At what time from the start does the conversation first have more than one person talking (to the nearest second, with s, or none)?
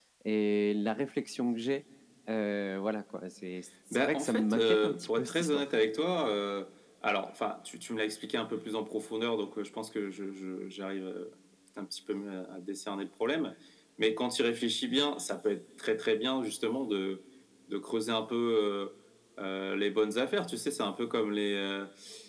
4 s